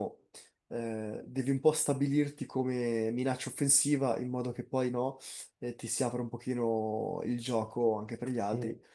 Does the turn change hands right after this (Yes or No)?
No